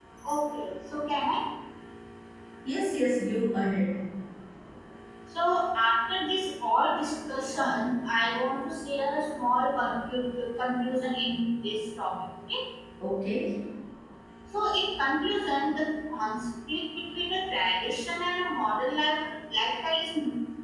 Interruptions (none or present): none